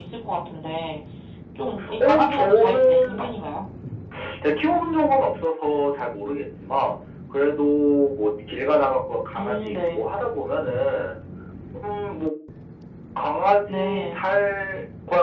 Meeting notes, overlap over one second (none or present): present